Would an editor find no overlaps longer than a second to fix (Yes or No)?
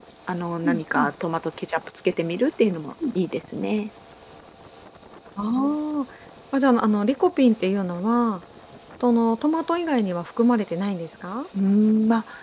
Yes